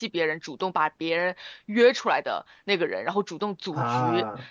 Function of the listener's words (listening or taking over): listening